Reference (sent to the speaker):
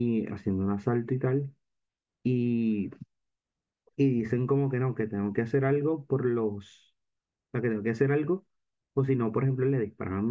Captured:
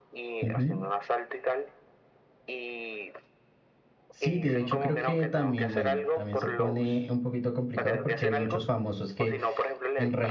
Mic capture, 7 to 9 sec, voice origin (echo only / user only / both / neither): both